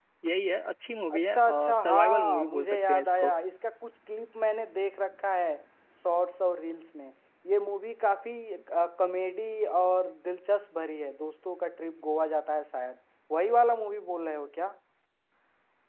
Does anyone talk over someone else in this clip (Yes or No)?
Yes